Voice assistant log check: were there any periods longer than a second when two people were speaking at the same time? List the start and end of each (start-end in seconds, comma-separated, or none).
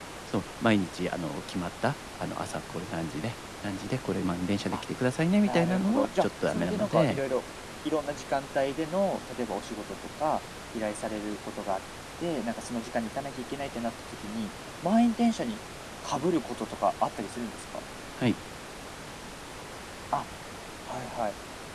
5.4-7.2